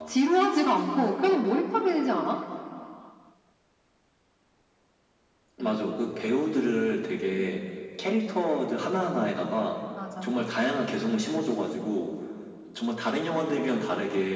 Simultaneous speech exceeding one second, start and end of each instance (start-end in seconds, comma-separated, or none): none